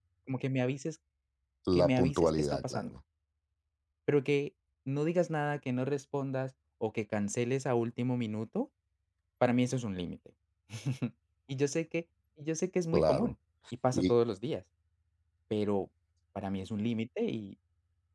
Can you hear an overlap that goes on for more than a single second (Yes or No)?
Yes